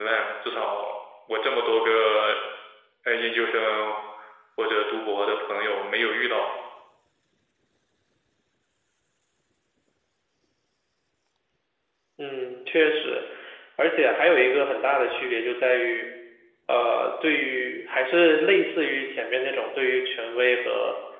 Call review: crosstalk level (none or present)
none